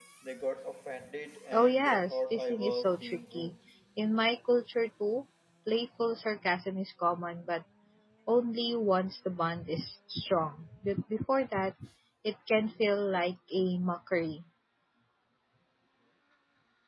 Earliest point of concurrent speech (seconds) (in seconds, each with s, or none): 1.5 s